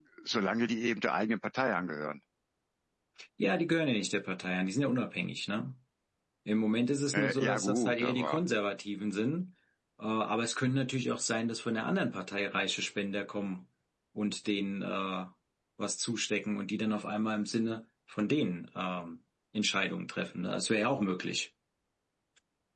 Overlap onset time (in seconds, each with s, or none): 7.1 s